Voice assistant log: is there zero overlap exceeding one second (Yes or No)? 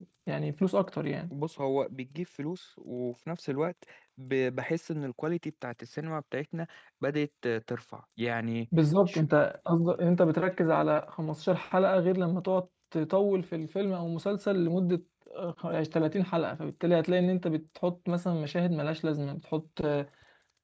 Yes